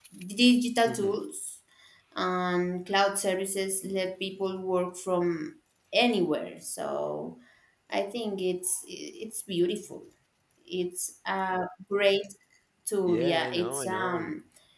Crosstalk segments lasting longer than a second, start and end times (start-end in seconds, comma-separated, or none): 13.0-14.3